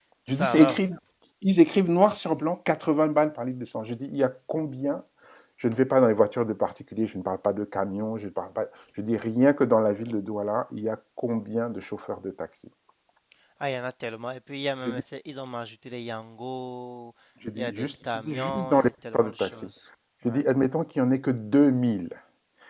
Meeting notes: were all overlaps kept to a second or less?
No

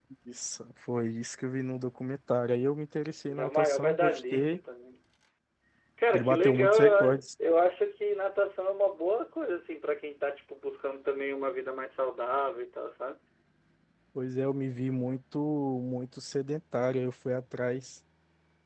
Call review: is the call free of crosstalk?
No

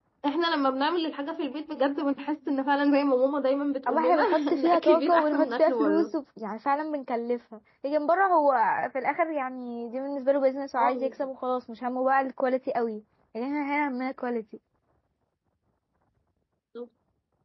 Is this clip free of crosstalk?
No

